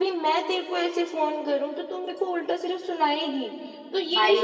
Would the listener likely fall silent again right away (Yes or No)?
Yes